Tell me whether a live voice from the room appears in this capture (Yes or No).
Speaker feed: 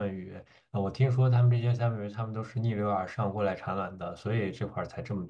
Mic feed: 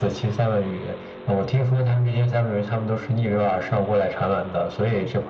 No